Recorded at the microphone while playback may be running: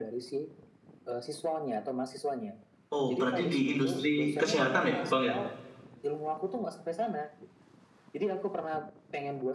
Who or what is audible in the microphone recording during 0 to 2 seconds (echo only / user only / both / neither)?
echo only